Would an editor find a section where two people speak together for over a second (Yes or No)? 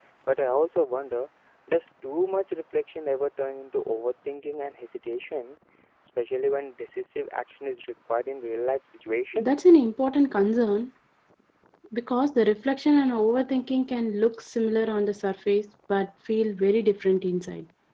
No